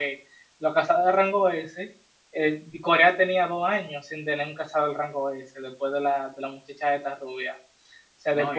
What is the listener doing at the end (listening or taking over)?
taking over